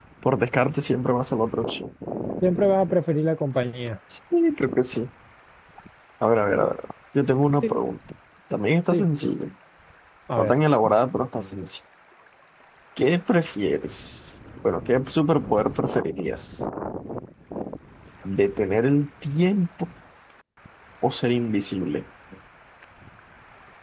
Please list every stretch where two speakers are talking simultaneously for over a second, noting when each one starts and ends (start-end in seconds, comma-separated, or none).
none